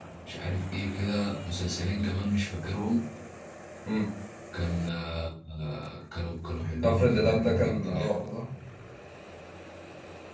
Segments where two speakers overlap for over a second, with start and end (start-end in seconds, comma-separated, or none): 6.8-8.1